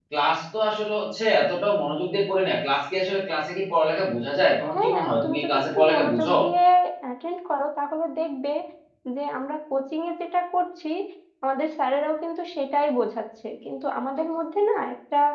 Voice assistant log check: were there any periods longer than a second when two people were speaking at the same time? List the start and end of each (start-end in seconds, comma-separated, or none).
4.7-6.3